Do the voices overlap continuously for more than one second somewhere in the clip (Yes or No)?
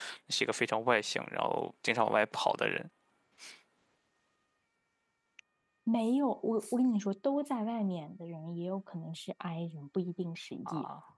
No